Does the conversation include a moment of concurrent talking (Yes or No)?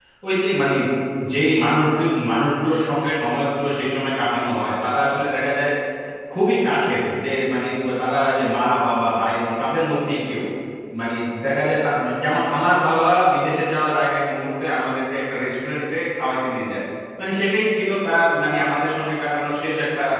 No